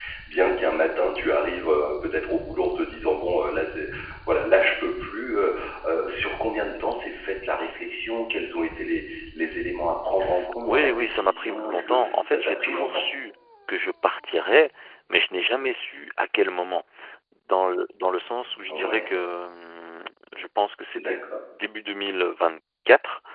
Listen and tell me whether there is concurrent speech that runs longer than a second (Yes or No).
Yes